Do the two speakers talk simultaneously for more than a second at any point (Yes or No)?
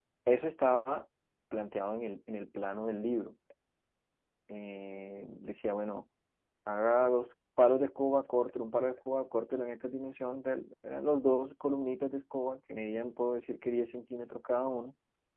No